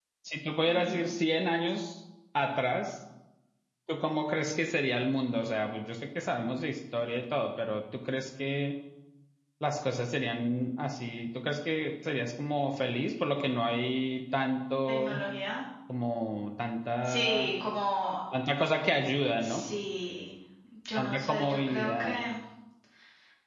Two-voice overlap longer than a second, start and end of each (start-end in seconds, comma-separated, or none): 20.9-22.2